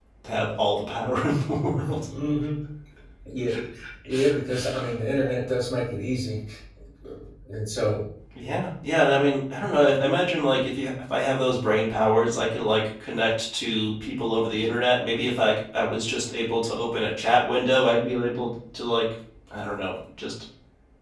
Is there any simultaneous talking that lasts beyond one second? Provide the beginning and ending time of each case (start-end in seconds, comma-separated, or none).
none